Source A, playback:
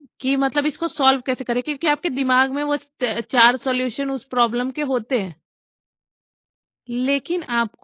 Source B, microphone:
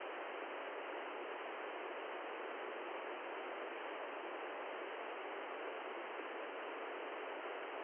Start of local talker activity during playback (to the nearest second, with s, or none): none